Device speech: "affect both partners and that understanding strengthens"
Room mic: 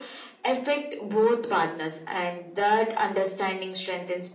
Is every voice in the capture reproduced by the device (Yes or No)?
Yes